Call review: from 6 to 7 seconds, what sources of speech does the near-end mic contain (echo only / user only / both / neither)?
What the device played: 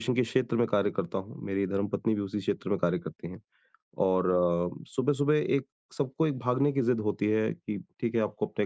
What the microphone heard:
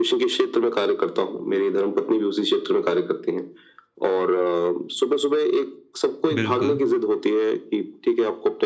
both